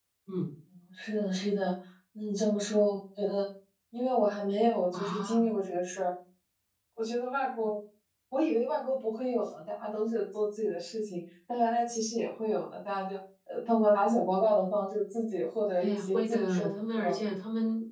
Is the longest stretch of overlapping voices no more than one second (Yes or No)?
No